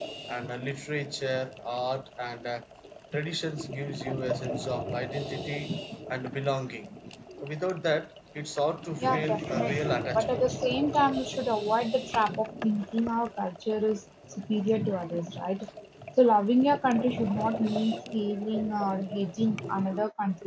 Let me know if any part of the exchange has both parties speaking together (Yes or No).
Yes